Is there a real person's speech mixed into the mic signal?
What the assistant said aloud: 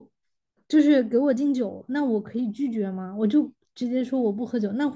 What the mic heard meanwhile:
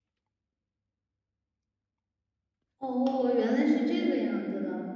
Yes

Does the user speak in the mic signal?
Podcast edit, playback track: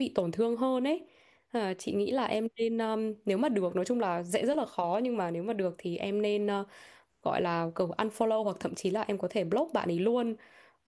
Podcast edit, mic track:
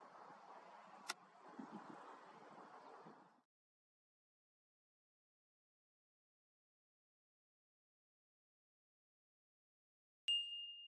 No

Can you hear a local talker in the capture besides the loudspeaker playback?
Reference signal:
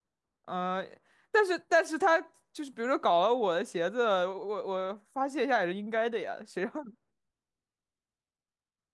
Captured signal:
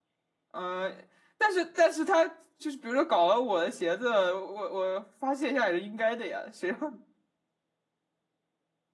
No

